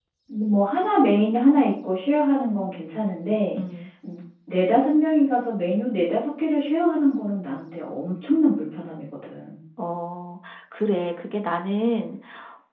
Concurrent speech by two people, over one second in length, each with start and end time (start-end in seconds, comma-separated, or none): none